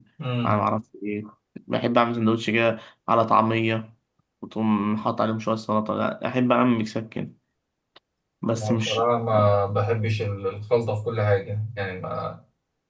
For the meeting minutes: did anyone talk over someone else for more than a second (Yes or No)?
No